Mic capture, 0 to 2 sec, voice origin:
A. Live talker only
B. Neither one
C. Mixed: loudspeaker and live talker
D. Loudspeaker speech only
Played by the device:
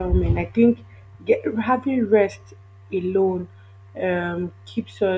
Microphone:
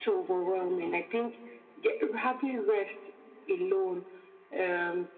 D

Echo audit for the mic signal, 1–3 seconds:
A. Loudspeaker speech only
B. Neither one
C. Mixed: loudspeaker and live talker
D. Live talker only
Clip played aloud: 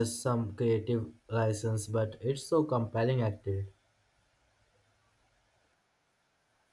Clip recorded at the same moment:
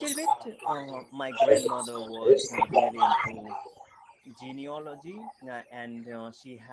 C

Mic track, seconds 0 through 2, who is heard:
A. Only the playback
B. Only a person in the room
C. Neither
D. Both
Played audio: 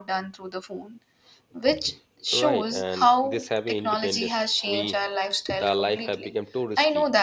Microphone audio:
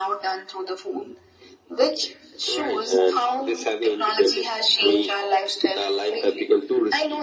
A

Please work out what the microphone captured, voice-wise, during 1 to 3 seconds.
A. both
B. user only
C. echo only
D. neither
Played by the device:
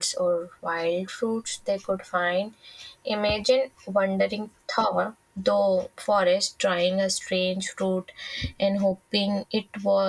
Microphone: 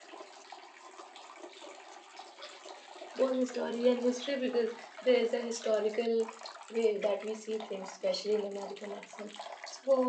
D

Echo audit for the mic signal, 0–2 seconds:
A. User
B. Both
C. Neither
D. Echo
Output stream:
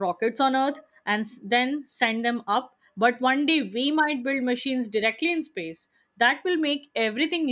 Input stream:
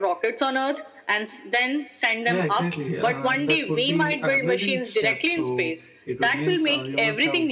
D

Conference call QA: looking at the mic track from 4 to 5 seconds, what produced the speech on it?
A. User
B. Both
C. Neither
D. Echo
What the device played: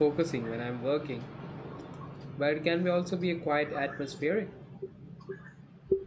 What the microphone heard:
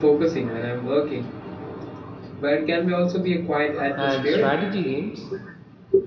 B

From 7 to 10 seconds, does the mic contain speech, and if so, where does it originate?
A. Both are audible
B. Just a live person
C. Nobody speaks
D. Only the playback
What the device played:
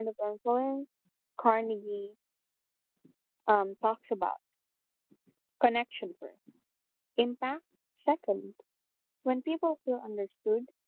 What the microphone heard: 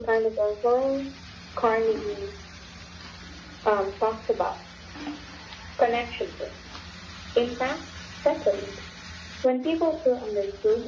D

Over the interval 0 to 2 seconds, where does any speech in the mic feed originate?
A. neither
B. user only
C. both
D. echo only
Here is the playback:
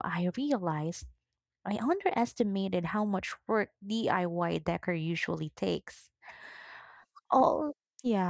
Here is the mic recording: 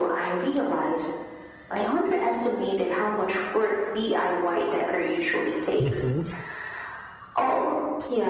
D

